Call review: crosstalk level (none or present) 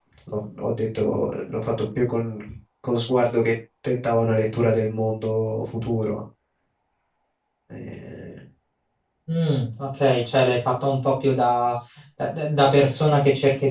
none